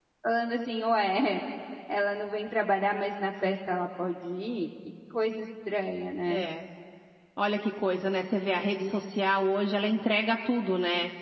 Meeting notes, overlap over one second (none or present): none